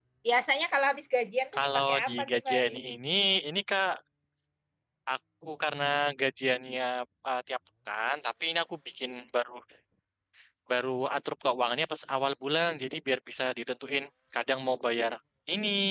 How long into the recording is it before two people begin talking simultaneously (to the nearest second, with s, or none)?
2 s